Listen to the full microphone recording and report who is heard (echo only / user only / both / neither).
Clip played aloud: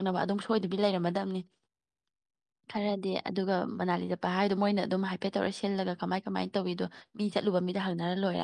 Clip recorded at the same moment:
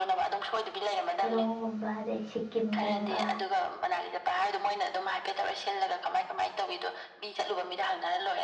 both